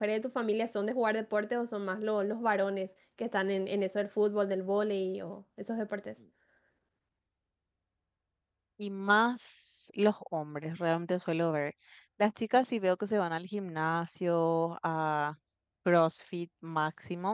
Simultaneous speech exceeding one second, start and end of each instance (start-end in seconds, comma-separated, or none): none